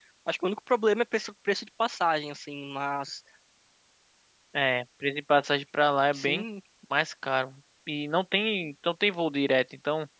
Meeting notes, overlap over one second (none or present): none